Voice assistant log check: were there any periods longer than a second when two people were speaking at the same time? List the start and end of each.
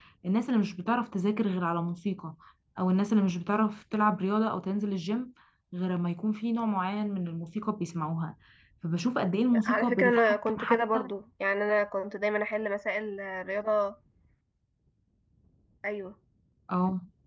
9.6-11.0

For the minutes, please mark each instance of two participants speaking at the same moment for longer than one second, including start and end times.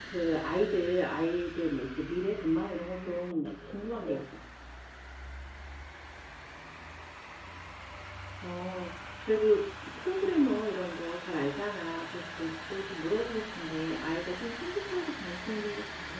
2.7-4.2

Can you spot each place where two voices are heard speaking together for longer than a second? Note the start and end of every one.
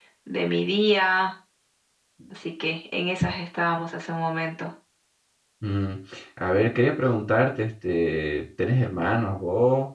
none

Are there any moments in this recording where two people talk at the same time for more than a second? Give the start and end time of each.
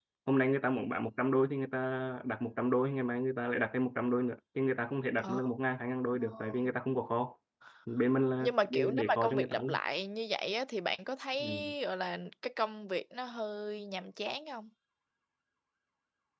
8.4-9.8

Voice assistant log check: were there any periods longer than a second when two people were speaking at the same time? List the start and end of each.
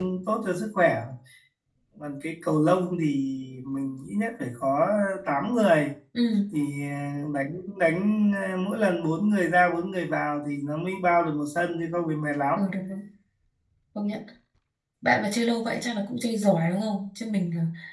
none

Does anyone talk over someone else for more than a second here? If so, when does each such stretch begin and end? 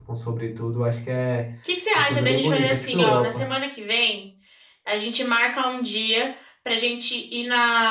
1.9-3.5

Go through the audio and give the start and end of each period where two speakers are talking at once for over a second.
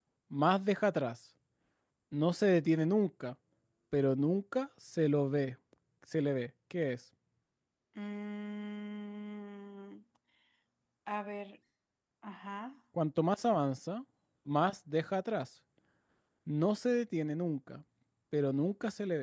none

